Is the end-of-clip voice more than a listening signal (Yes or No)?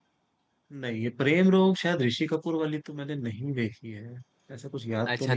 Yes